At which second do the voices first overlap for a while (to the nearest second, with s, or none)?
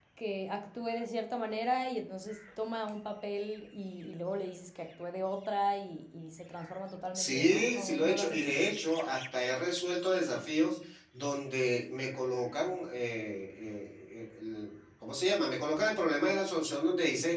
7 s